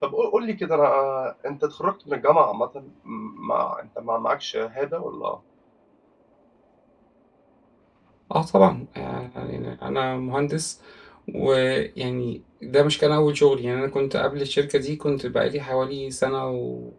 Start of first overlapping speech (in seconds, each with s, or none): none